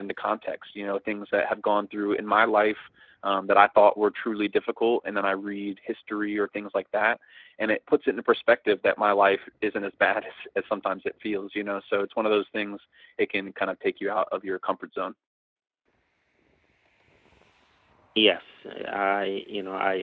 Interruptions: none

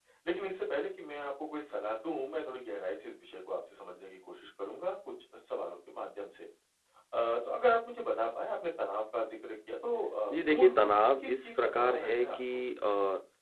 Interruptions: present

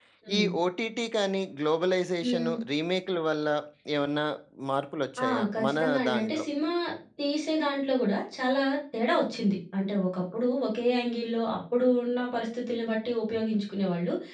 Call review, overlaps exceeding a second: present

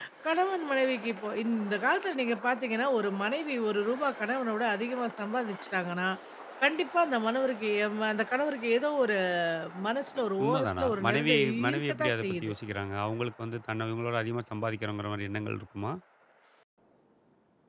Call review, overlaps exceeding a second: present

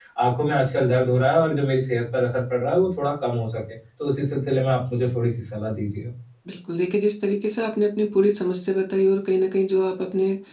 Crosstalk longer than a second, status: none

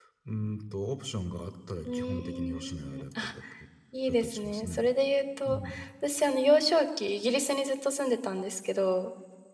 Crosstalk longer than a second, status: present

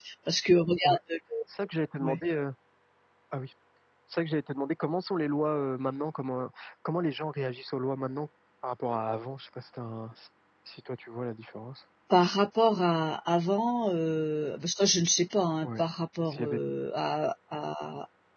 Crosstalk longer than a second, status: none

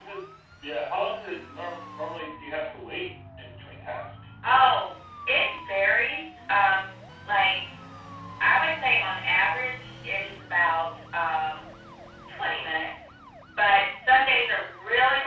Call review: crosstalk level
none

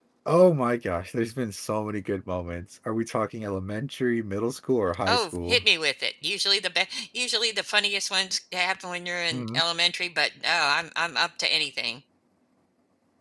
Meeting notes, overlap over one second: none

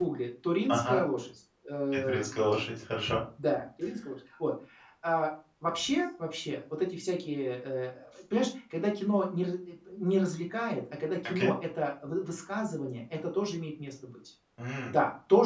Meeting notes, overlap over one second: none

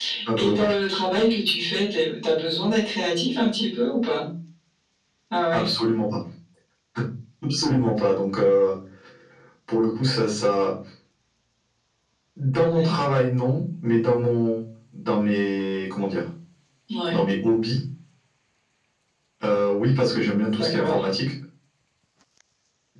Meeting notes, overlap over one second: none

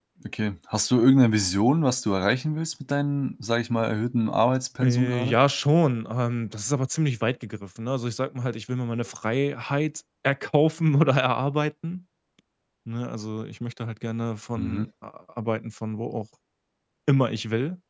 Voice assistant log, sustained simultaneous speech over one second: none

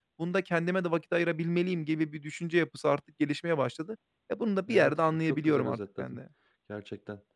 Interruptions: present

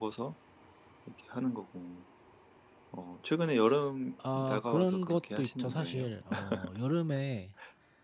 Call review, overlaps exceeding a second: present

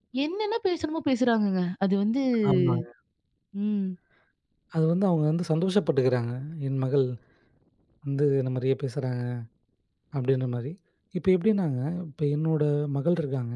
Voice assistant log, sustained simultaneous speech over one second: none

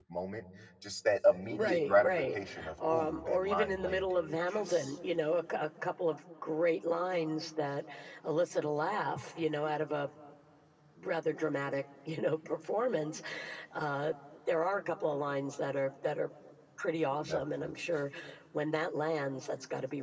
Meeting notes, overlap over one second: present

